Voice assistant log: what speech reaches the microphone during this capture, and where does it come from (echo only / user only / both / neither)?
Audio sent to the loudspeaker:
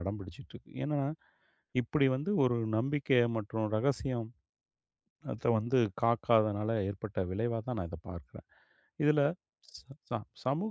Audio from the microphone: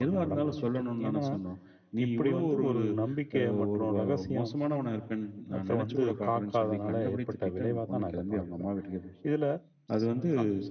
both